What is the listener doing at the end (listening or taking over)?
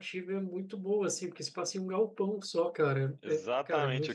taking over